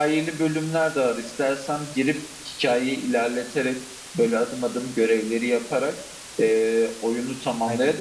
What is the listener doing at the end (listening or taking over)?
listening